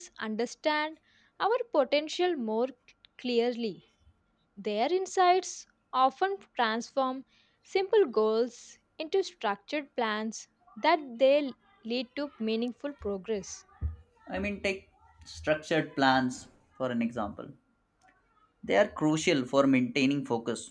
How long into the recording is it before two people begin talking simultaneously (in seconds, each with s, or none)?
none